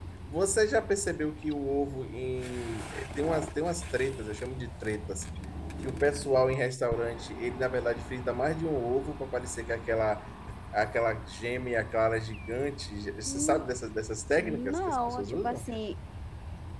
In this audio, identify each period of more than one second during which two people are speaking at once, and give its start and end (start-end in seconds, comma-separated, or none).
14.4-15.7